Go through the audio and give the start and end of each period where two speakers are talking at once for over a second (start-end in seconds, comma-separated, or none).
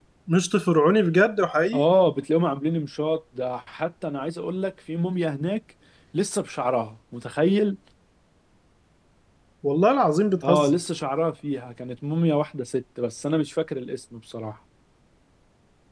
none